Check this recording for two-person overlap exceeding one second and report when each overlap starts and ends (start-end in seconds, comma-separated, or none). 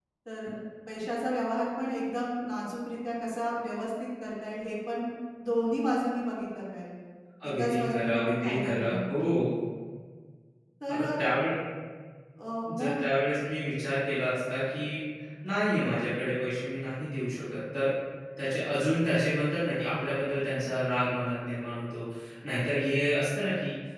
7.5-9.1